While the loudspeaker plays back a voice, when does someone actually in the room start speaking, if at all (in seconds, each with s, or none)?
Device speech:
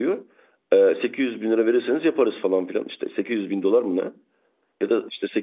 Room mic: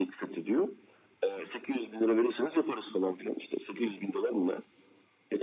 none